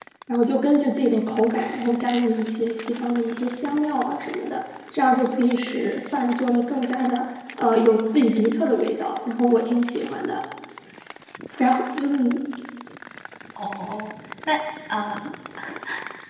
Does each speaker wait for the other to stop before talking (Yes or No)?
Yes